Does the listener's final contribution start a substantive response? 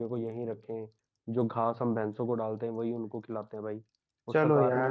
Yes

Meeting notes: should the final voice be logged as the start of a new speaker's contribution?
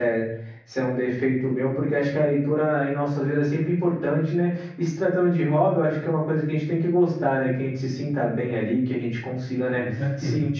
No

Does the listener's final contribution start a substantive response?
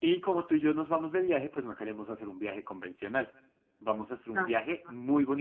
No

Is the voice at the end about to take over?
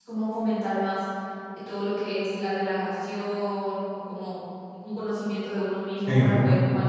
No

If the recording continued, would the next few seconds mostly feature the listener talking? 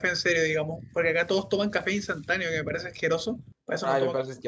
Yes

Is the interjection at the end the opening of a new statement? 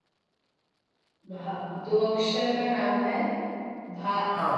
Yes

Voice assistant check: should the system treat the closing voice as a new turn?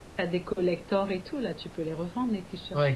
Yes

